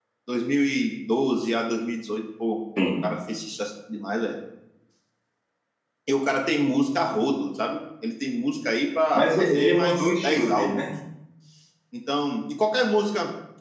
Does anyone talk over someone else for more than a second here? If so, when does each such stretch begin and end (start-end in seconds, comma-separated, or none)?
9.2-10.8